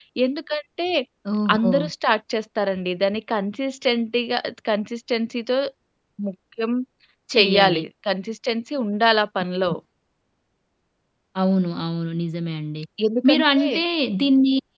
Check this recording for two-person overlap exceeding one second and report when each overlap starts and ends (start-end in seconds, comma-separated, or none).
none